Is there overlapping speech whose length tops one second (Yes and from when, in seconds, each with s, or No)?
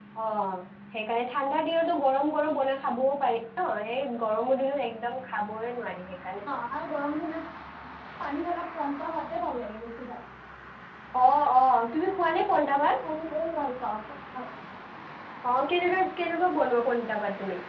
No